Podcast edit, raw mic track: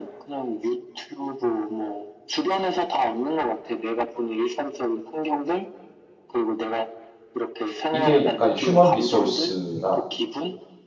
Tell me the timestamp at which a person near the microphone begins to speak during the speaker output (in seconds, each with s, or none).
7.9 s